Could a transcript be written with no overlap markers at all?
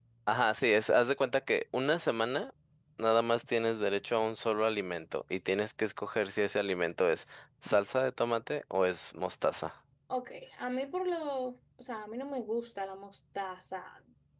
Yes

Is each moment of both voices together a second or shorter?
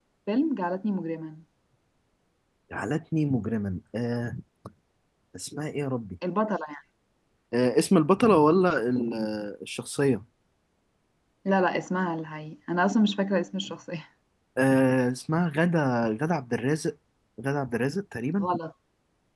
Yes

